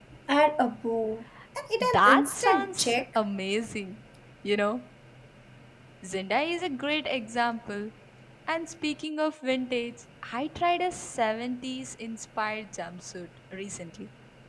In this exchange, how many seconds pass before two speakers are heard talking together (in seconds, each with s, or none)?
1.8 s